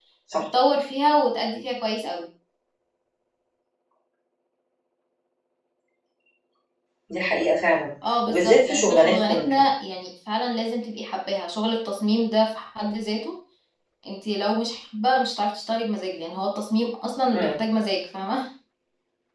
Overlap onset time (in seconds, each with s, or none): 8.3 s